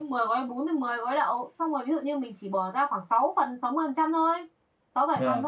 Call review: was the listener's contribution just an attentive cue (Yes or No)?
Yes